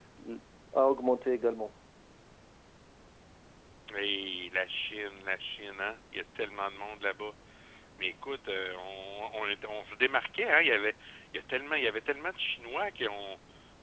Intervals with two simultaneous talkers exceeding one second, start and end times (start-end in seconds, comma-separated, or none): none